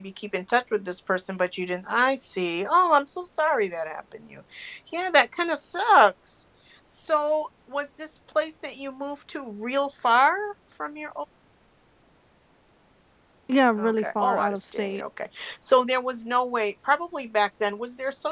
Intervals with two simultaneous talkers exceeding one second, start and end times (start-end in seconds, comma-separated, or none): 13.8-15.0